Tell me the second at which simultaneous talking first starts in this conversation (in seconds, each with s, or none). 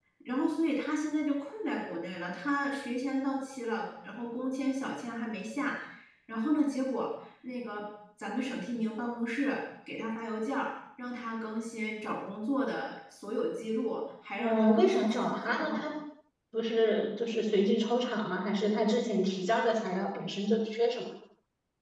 14.4 s